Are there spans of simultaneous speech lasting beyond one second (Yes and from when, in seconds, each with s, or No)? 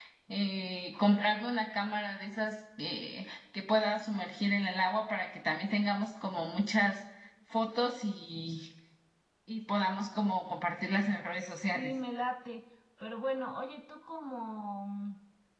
No